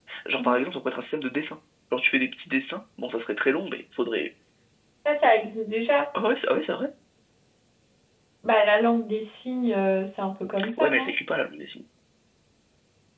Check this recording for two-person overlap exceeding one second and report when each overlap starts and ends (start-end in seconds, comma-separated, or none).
none